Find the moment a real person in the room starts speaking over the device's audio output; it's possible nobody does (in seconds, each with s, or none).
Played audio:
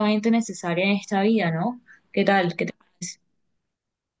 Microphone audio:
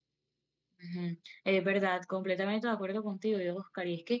0.8 s